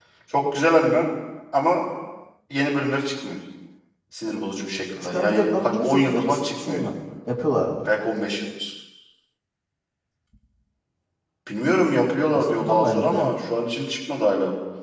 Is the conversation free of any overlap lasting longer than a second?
No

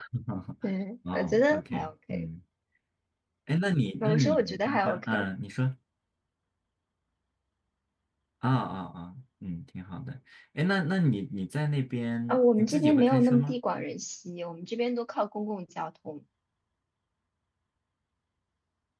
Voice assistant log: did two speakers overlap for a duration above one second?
Yes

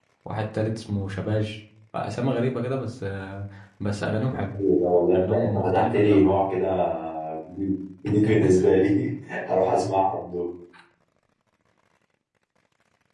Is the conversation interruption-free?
No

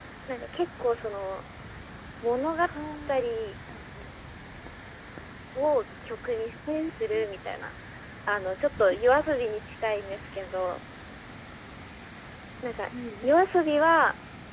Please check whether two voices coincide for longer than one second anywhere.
No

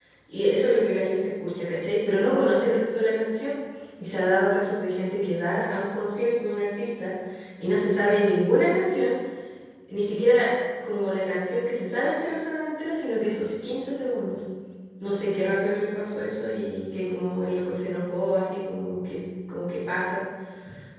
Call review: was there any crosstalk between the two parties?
No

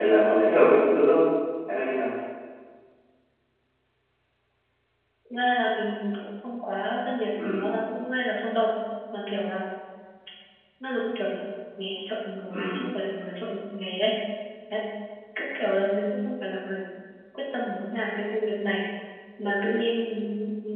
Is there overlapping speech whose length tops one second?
No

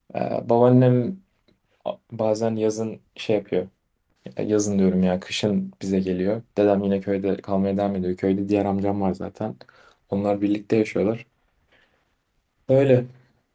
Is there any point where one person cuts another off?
No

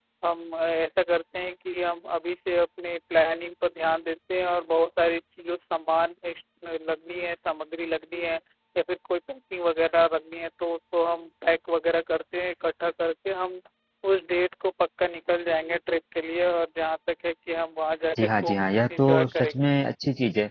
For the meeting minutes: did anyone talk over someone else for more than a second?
Yes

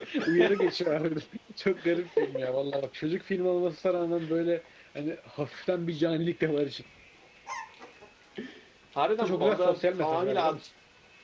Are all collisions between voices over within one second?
No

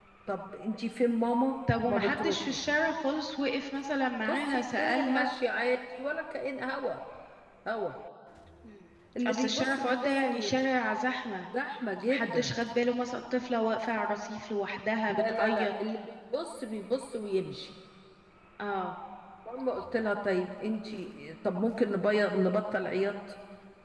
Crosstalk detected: Yes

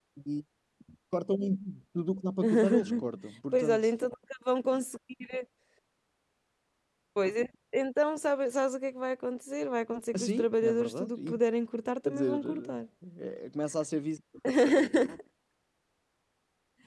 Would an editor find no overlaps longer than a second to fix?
No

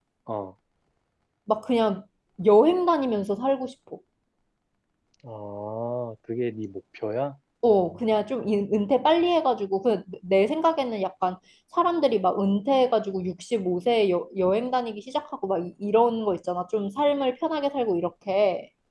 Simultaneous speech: No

